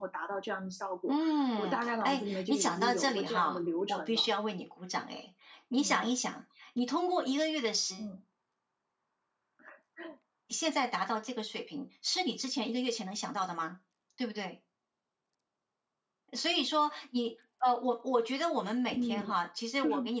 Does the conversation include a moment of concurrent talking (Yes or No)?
Yes